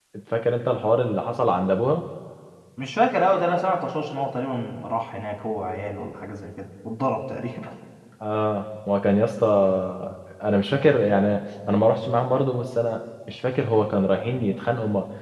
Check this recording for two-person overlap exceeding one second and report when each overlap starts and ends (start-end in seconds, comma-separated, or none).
none